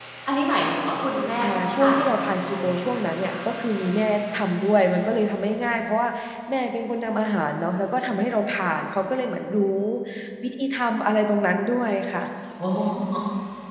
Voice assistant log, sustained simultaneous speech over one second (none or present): present